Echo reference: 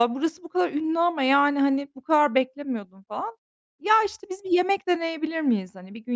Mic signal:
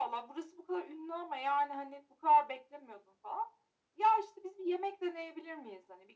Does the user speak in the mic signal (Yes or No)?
No